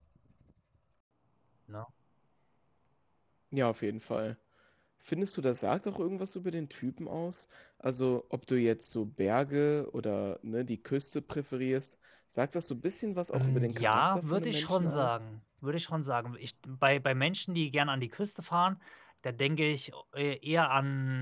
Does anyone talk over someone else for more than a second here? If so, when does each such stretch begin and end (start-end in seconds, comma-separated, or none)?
13.3-15.2